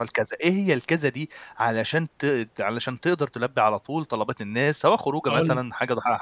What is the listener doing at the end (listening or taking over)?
listening